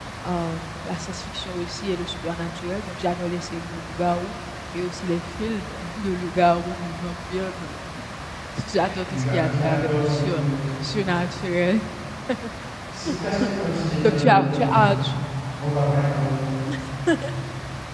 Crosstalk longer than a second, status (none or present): present